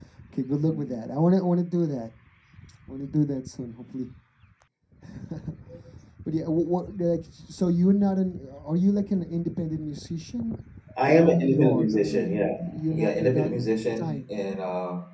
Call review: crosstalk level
present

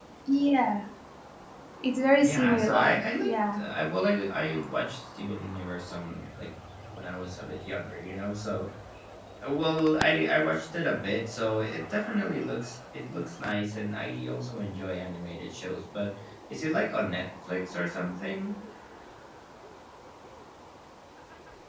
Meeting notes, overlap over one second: present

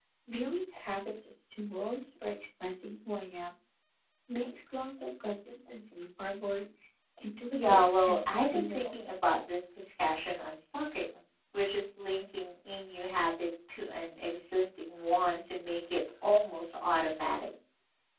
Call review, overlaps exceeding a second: present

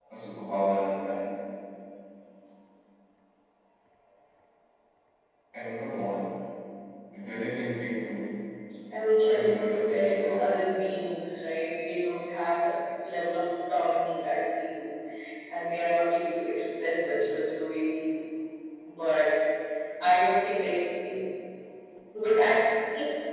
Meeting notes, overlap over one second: present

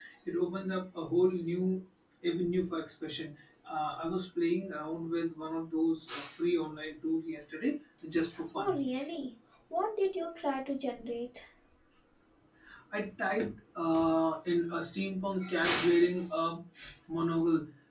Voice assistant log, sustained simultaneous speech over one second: none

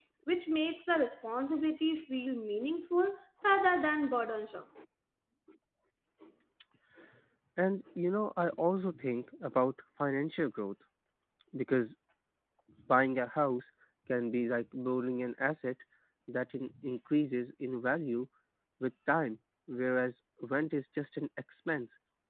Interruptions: none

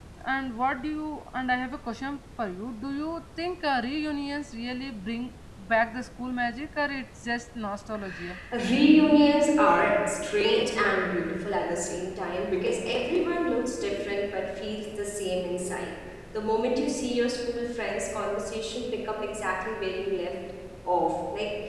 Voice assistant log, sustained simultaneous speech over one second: none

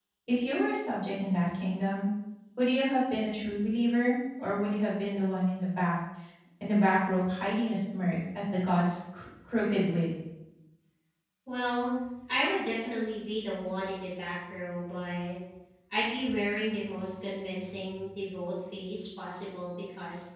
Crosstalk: none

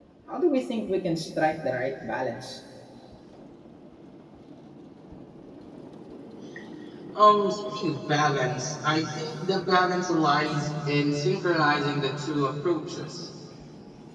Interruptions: none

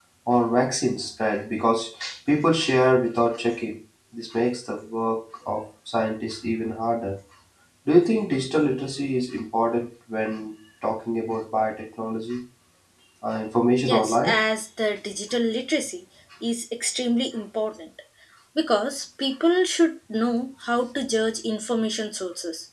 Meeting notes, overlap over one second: none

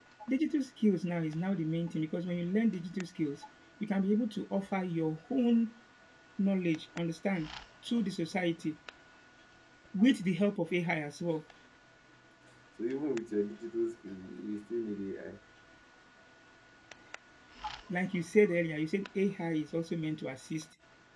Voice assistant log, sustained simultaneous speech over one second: none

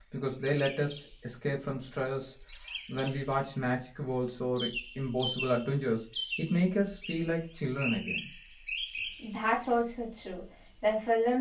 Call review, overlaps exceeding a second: none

